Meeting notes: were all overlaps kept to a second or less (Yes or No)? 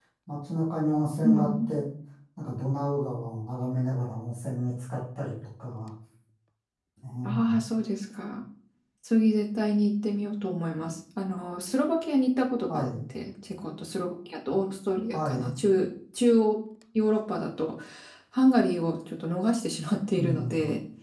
Yes